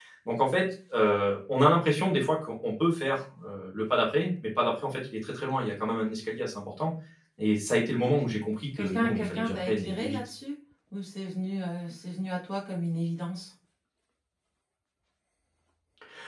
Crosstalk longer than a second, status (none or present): present